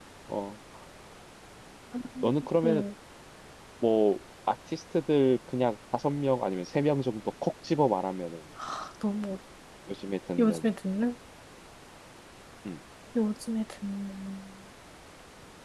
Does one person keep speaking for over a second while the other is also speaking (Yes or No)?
No